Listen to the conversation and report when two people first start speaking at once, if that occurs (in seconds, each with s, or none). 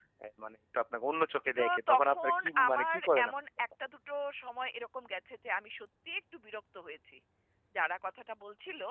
1.6 s